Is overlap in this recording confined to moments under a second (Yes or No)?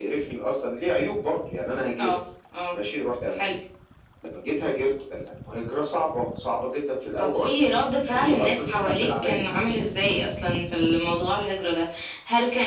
No